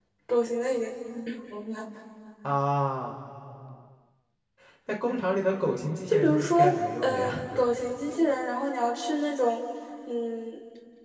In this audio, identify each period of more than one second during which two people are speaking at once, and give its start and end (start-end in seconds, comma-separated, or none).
6.1-7.4